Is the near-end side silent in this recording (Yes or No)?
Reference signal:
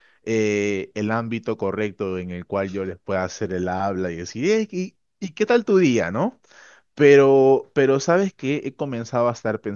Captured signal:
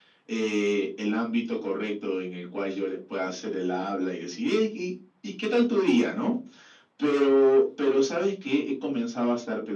Yes